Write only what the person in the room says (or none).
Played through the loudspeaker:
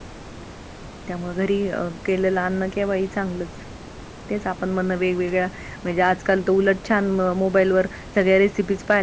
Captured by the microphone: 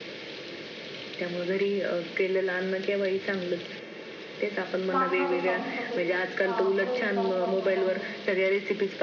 लागणार साहित्यत. अ ग्रेव तयार करण्यासाठी